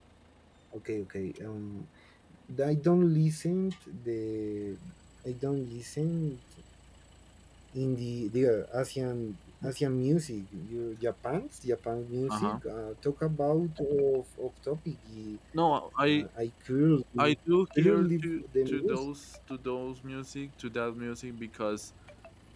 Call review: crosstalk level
present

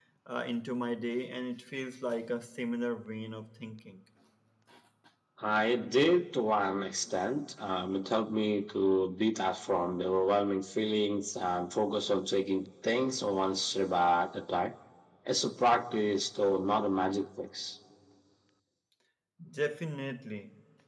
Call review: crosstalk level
none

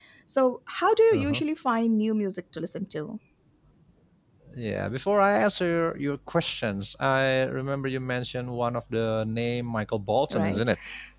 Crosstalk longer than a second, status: none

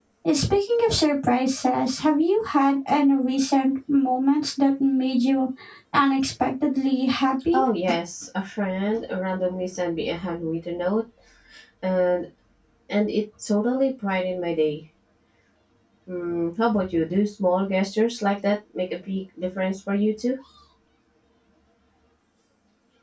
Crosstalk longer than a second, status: none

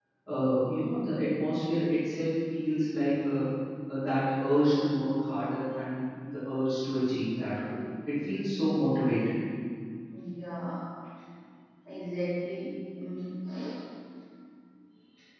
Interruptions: none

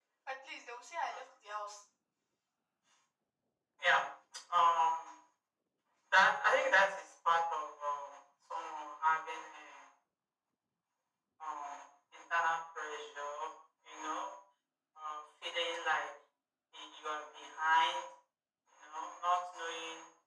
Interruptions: none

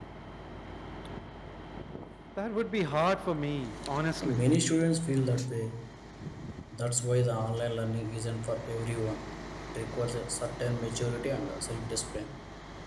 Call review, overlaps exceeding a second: none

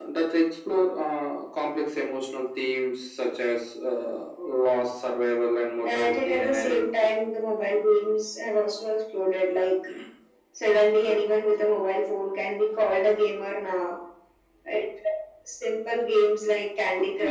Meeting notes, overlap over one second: present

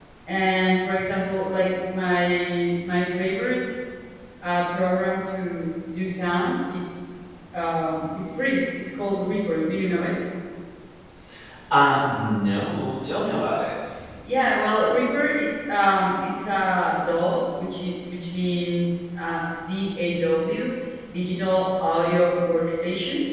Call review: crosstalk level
none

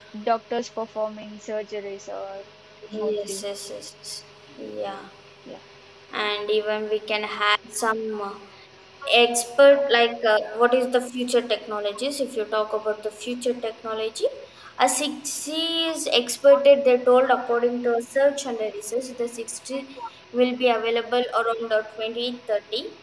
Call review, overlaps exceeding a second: none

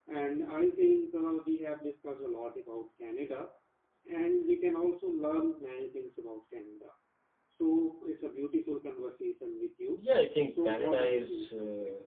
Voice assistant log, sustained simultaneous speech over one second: present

